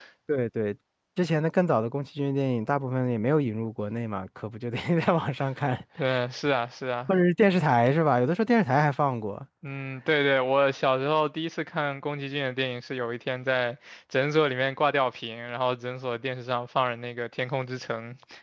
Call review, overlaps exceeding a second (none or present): none